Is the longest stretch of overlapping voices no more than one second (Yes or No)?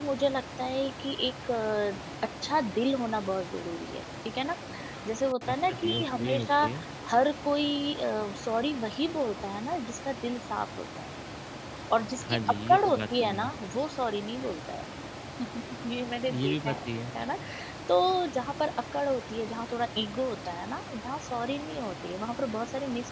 No